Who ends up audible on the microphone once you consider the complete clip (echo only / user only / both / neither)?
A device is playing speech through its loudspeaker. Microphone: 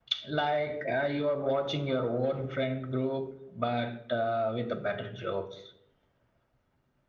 echo only